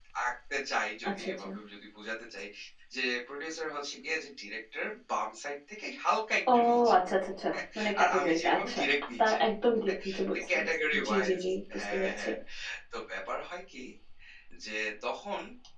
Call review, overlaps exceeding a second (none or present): present